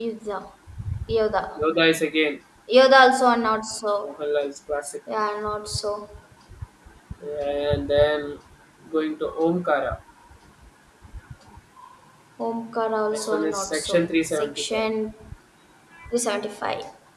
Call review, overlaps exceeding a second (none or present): present